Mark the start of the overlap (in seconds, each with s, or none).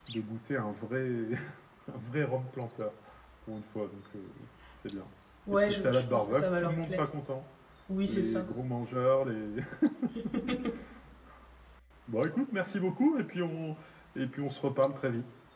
5.5 s